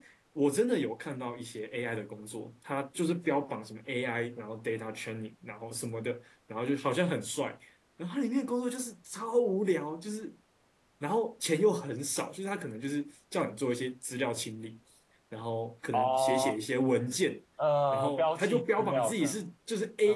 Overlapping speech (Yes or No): Yes